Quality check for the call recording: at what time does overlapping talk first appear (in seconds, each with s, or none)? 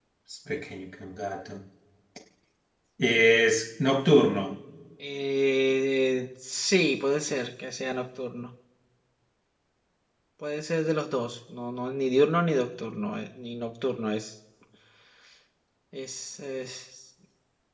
none